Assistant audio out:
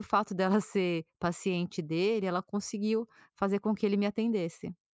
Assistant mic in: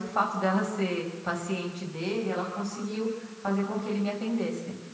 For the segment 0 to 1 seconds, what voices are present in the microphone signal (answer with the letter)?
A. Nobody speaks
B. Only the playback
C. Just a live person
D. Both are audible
B